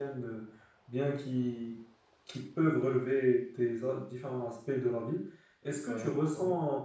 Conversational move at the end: listening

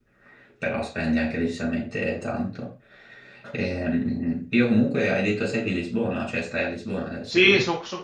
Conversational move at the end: taking over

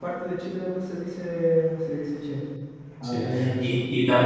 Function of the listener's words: taking over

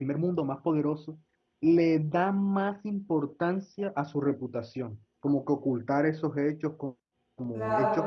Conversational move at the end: listening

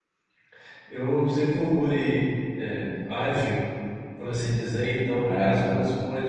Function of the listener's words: listening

